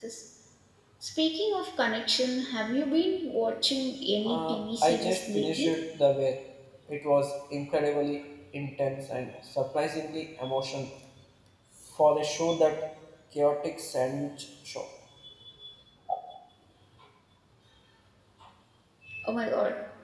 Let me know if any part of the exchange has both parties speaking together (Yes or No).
Yes